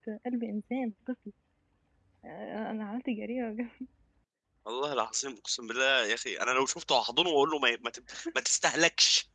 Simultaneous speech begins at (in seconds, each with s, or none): none